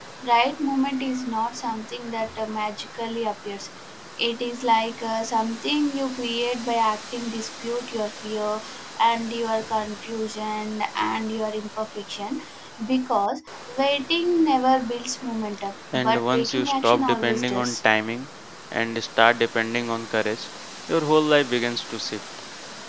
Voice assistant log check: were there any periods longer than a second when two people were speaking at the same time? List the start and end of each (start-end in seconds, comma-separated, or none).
15.9-17.8